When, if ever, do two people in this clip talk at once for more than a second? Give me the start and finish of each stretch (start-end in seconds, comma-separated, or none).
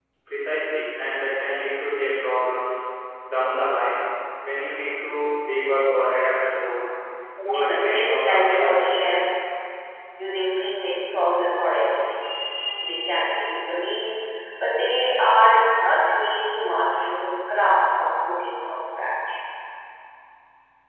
7.5-9.3